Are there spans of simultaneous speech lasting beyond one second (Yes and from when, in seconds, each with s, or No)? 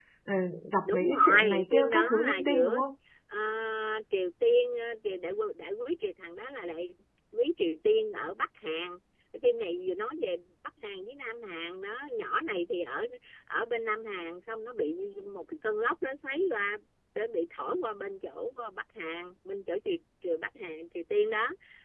Yes, from 0.8 s